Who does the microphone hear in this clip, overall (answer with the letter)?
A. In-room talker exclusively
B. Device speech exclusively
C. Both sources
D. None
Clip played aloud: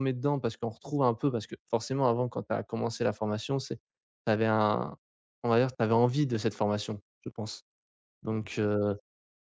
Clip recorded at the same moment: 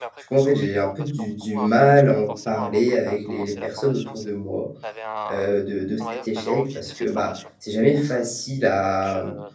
C